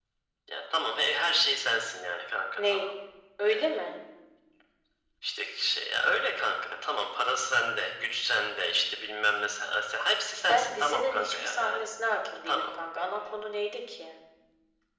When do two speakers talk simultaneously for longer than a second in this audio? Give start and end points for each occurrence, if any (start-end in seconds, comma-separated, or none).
10.5-11.9